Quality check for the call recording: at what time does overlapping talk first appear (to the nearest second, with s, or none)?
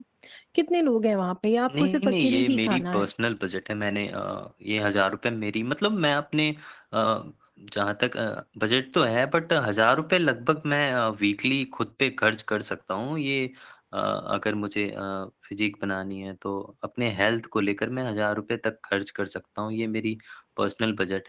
2 s